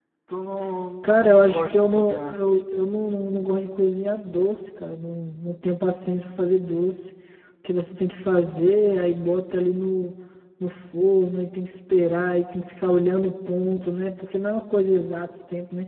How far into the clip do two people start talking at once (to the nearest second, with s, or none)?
1 s